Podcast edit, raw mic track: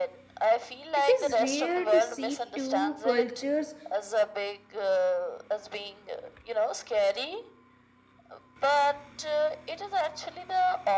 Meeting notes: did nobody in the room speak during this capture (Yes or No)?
No